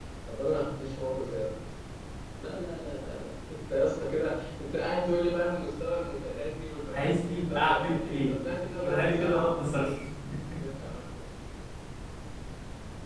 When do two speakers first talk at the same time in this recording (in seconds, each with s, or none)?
6.9 s